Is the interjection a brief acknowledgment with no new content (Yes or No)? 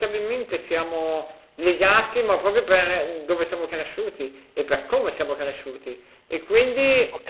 Yes